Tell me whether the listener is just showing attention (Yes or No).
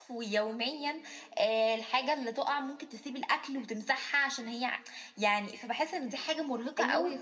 No